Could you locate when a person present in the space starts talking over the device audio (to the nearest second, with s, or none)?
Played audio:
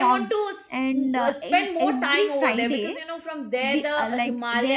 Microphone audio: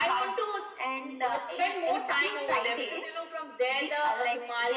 none